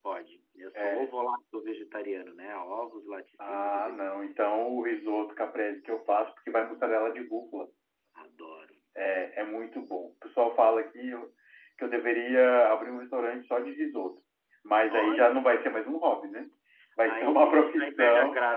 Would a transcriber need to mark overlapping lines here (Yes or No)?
Yes